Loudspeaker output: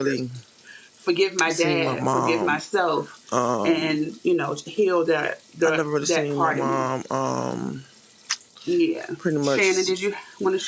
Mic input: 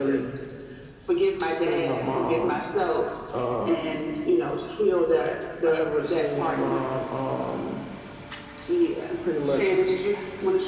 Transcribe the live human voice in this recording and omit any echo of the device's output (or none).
none